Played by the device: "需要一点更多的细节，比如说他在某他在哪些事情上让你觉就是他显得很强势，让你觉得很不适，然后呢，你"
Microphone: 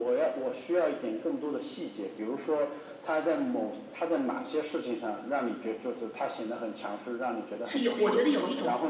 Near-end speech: present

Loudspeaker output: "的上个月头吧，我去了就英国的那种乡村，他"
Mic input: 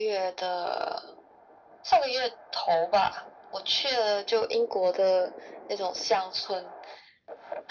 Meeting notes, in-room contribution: none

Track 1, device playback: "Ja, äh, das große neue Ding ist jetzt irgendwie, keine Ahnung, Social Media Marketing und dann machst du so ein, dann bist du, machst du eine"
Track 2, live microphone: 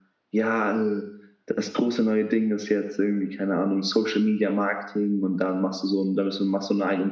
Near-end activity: none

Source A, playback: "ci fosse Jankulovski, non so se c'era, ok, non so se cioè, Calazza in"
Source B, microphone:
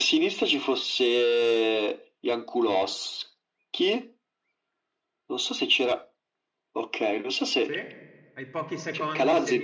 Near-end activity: present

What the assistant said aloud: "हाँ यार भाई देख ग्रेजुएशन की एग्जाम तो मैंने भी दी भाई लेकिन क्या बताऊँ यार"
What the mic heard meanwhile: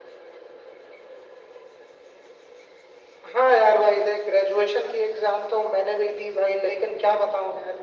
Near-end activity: none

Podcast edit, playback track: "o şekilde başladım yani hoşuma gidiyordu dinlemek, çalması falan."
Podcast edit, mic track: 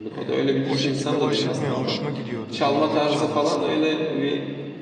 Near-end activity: present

